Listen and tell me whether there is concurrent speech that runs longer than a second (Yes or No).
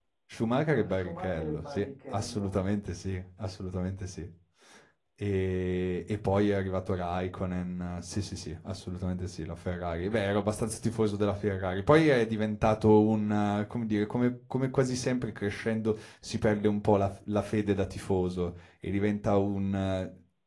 Yes